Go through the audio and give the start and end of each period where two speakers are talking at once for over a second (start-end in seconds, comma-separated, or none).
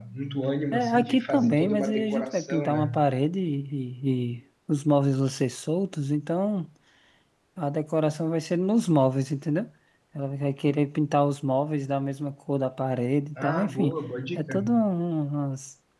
0.7-3.0